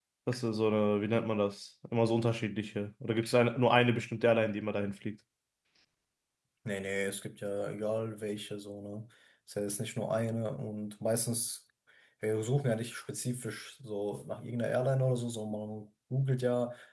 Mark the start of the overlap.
none

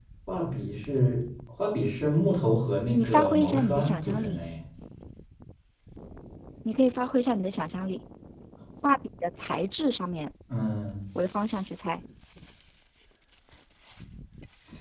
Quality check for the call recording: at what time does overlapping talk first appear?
2.9 s

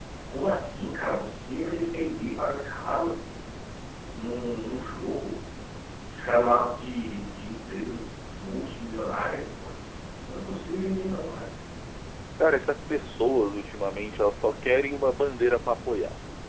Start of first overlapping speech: none

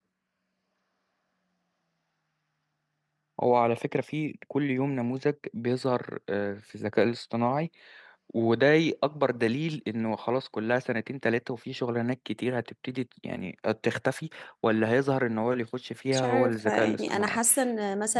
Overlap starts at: 16.1 s

